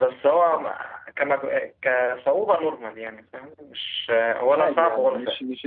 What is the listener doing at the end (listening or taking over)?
taking over